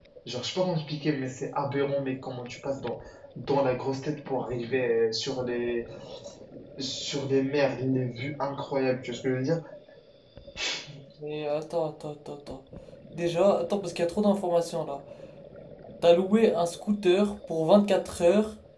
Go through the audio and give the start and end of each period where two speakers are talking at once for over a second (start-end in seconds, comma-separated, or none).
none